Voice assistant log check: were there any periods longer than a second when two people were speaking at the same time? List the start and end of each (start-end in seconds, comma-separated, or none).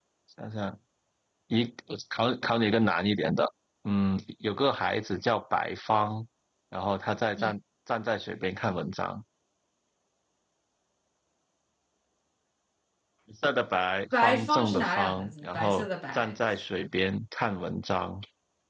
14.2-16.4